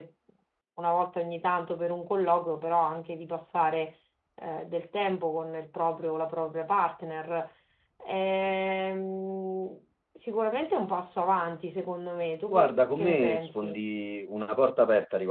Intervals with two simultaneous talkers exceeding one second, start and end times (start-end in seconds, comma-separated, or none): 12.5-13.8